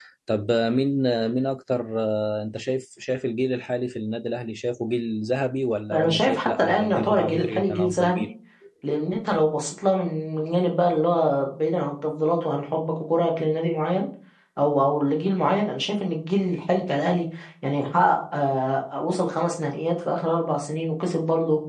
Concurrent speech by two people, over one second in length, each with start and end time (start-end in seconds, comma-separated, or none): 5.9-8.3